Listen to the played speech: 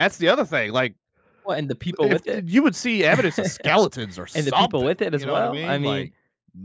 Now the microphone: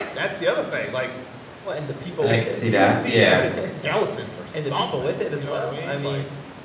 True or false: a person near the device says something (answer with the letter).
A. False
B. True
B